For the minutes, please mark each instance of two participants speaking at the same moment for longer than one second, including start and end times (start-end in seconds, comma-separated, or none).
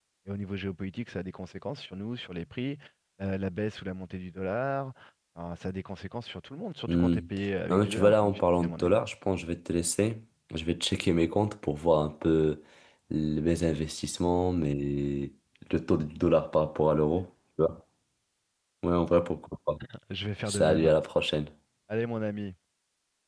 7.7-9.0